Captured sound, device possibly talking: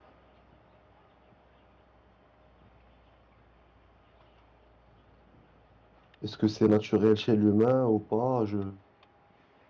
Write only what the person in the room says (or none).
Est-ce que c'est naturel chez l'humain ou pas? Je...